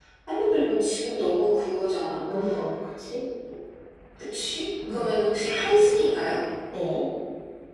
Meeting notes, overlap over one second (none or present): none